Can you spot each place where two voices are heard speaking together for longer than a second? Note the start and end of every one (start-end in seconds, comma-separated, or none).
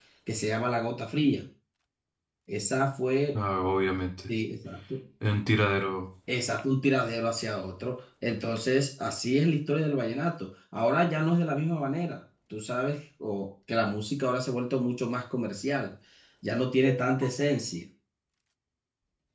none